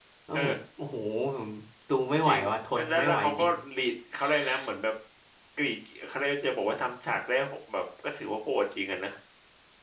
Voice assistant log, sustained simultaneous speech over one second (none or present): present